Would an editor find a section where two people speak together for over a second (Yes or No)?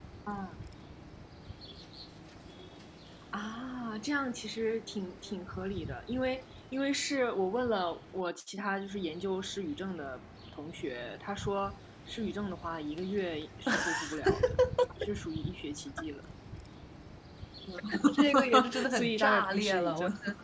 Yes